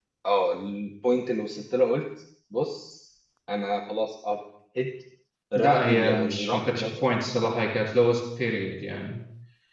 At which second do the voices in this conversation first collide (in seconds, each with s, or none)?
5.5 s